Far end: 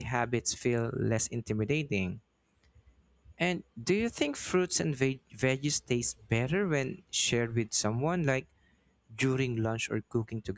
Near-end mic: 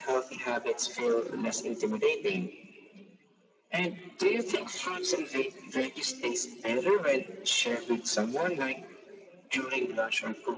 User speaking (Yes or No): No